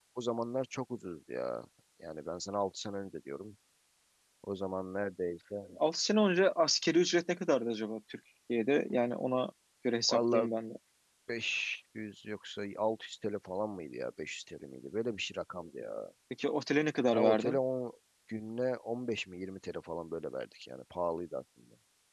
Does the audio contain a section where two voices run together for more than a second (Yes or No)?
No